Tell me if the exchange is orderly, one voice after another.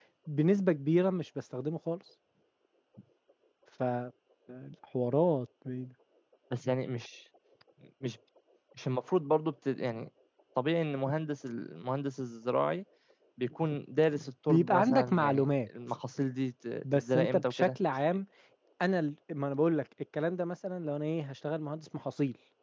No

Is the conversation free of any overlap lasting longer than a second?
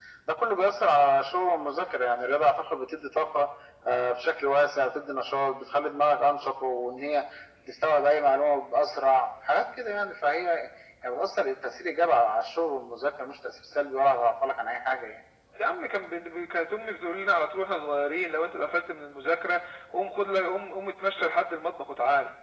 Yes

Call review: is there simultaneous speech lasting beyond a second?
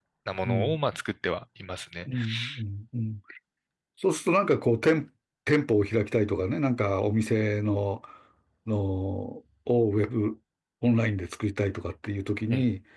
No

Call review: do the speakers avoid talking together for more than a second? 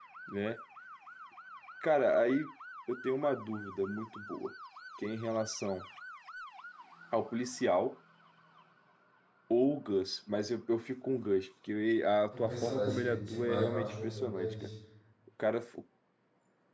No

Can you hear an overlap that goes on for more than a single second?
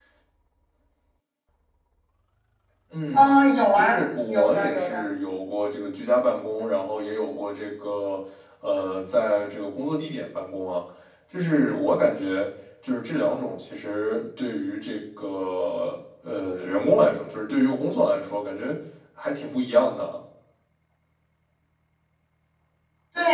Yes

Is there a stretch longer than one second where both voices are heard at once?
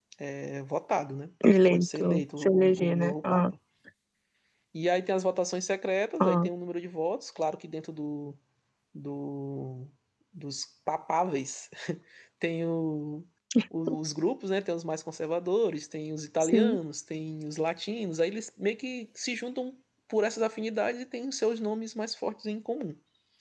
Yes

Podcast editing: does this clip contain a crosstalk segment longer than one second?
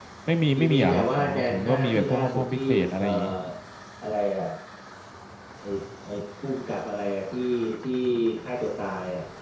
Yes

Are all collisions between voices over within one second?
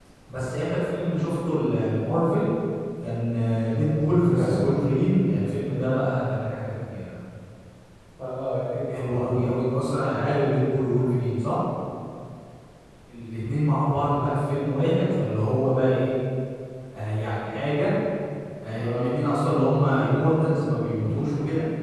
Yes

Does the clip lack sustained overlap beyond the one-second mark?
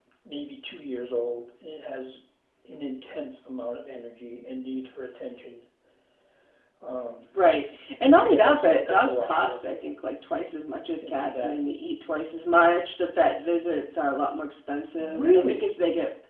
No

